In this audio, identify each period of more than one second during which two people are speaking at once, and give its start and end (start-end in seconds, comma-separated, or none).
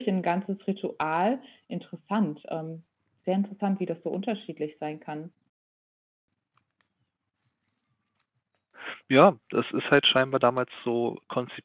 none